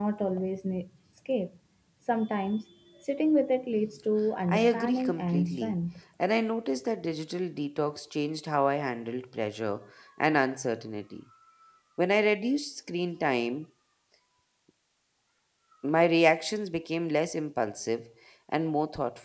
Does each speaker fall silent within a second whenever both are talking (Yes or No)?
No